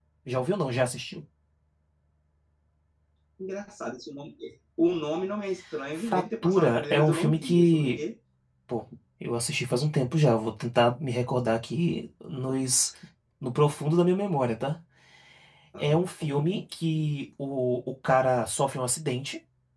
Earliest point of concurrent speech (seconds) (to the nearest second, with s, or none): 6 s